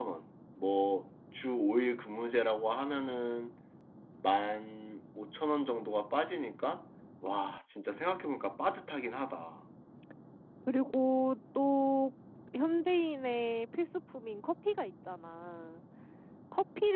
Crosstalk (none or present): none